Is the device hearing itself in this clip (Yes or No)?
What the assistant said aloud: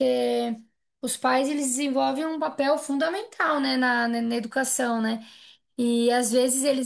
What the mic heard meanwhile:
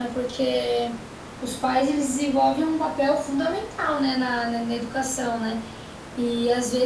Yes